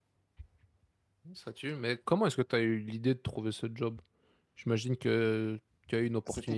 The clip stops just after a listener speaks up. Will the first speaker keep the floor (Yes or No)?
No